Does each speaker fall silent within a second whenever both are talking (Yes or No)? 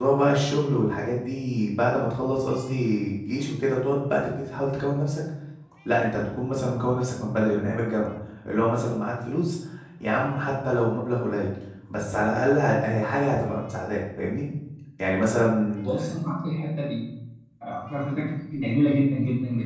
Yes